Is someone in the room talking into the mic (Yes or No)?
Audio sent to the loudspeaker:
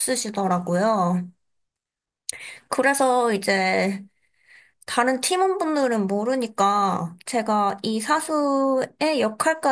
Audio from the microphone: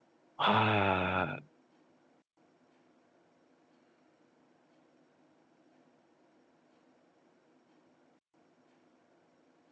Yes